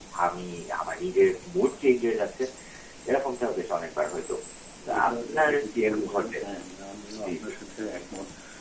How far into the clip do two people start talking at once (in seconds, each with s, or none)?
5.1 s